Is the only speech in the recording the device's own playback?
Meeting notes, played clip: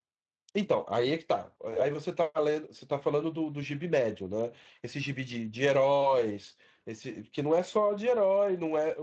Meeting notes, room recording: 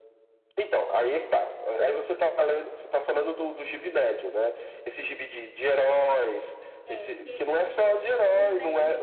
No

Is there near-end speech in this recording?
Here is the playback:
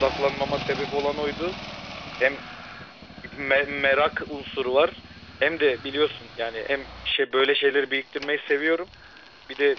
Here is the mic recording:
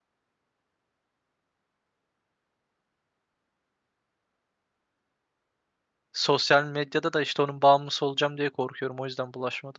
Yes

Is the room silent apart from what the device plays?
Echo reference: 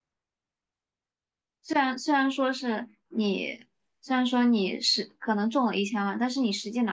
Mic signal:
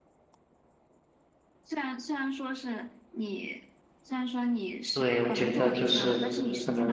No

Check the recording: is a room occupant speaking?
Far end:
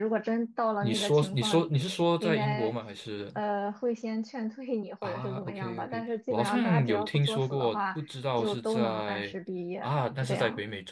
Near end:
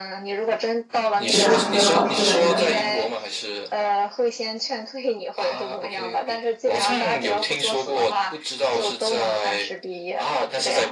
Yes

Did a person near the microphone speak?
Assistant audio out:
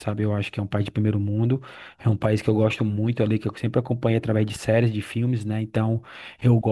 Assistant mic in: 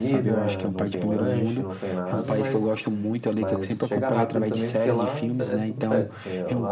Yes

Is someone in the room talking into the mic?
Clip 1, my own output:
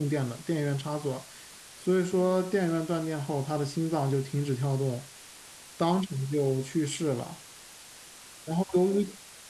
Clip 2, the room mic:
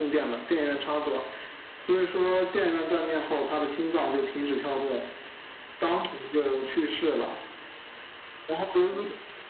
No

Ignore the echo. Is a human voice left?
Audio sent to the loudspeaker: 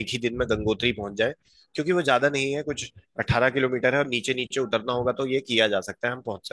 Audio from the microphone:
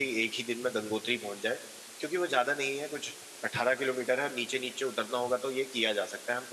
No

